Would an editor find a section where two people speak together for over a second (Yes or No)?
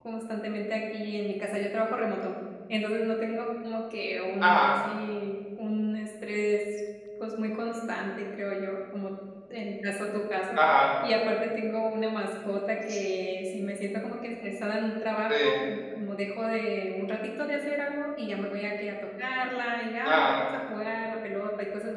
No